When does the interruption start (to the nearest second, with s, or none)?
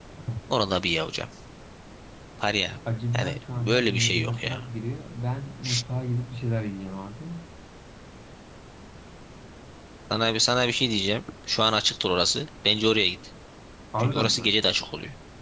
3 s